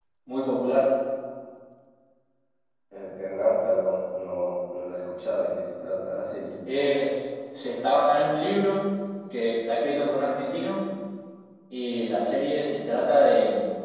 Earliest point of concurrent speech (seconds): none

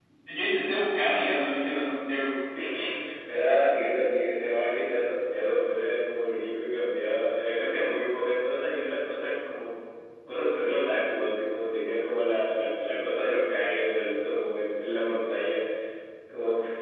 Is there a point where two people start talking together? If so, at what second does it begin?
none

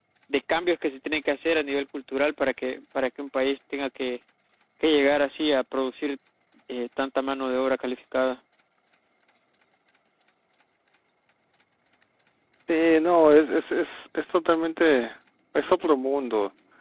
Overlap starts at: none

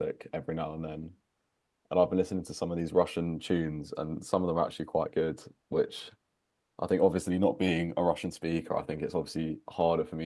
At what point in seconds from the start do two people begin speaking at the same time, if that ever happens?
none

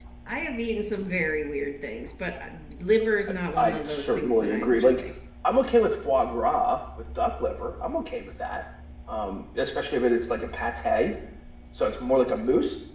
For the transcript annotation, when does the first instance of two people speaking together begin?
3.5 s

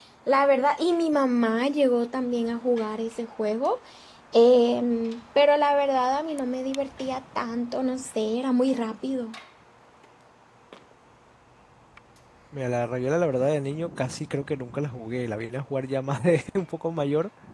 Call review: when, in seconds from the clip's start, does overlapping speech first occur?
none

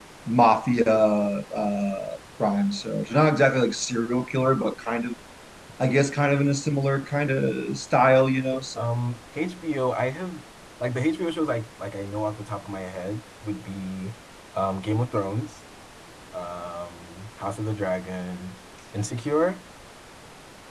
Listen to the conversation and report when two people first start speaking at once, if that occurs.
none

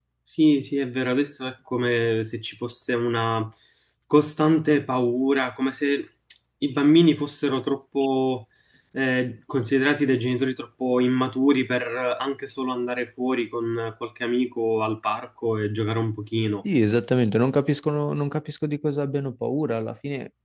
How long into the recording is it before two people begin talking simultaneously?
none

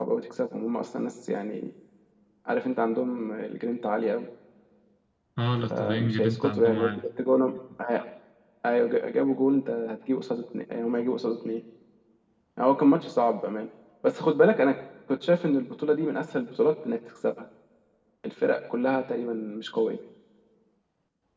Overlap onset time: 5.7 s

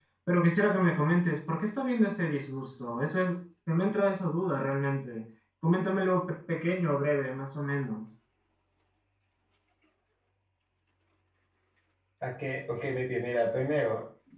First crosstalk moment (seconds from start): none

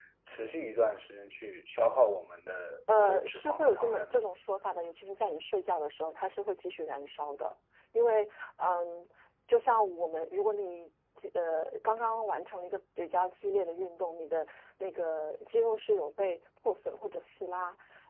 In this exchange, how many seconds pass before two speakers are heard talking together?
2.9 s

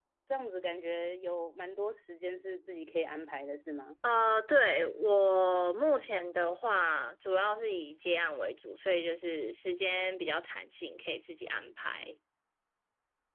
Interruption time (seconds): none

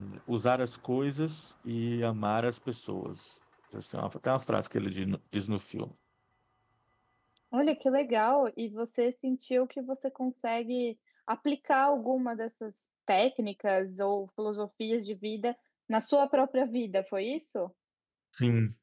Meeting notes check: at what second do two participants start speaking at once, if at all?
none

